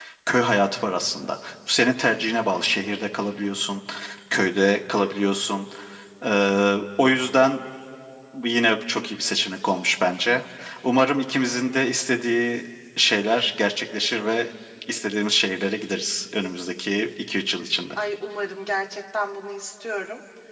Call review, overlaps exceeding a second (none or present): none